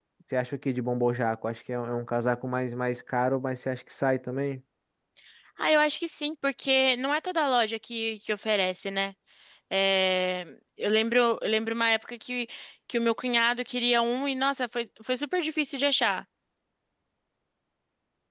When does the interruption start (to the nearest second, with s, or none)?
none